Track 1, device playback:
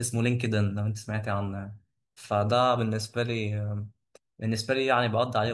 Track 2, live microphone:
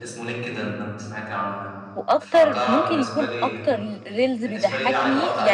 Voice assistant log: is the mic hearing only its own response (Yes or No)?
No